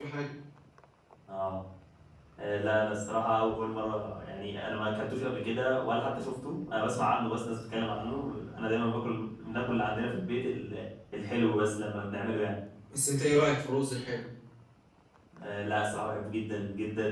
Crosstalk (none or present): none